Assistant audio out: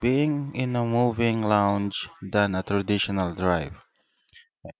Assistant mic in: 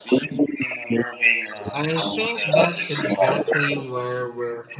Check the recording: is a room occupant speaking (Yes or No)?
Yes